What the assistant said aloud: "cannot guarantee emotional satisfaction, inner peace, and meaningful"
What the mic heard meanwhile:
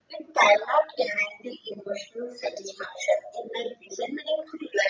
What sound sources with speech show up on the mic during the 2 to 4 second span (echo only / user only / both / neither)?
echo only